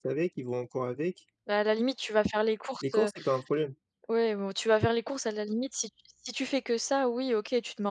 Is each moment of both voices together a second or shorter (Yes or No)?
Yes